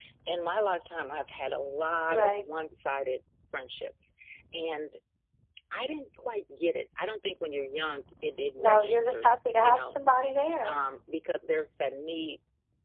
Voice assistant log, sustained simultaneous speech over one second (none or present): present